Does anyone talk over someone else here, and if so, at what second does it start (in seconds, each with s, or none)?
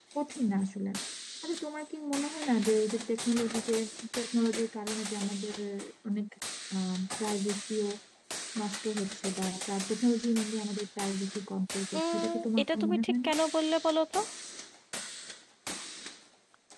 11.9 s